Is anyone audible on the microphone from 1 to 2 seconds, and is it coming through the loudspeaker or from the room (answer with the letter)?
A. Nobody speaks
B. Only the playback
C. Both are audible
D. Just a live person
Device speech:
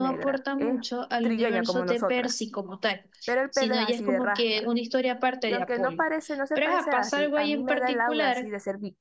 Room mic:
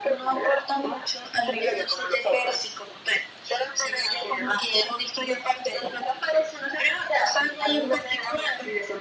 B